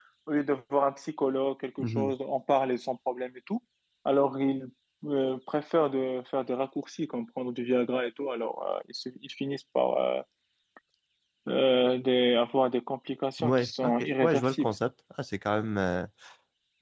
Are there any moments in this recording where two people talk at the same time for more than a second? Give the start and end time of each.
13.4-14.7

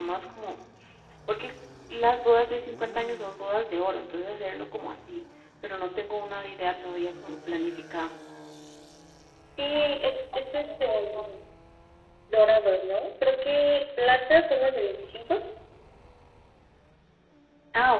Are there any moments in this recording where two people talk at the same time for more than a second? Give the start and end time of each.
none

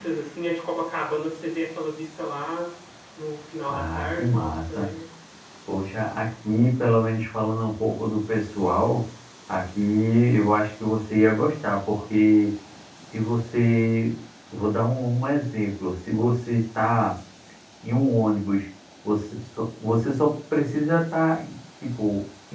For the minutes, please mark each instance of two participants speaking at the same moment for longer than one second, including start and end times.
3.7-4.9

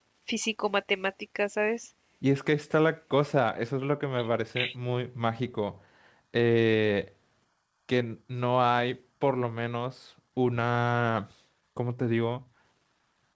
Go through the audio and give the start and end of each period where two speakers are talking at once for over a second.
none

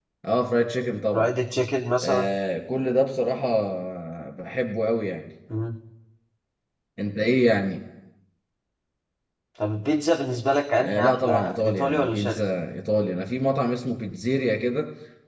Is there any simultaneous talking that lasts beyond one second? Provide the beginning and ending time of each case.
10.8-12.4

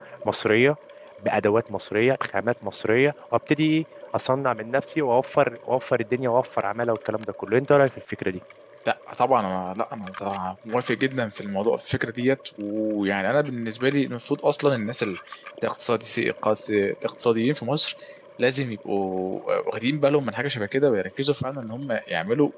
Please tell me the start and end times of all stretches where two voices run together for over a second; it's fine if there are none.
none

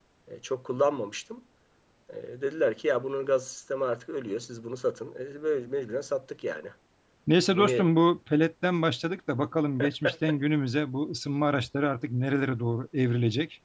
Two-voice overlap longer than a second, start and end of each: none

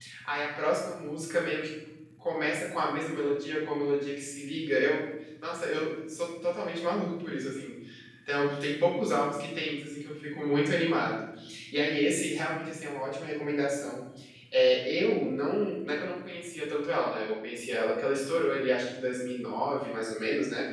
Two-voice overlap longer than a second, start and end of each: none

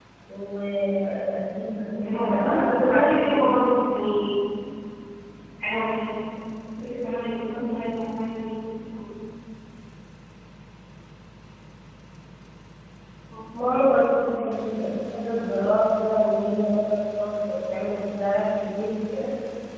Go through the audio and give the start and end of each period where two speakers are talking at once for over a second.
1.9-3.4

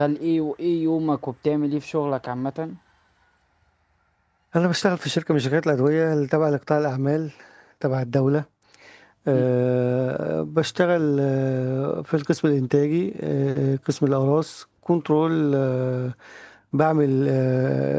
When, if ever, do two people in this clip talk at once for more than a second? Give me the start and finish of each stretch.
none

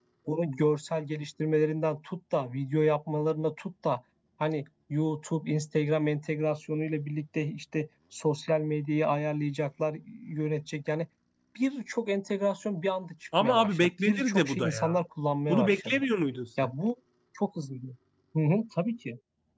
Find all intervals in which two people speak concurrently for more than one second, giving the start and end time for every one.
13.4-15.0

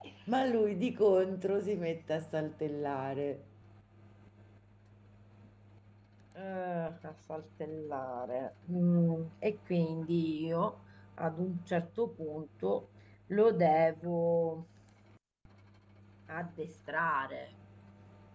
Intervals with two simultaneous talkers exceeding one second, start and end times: none

